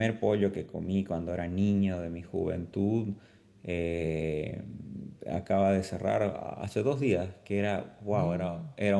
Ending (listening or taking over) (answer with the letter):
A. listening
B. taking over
A